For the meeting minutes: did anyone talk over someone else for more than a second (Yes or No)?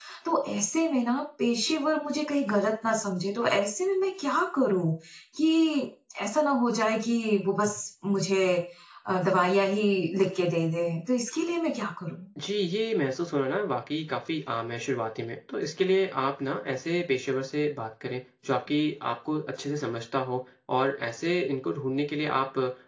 No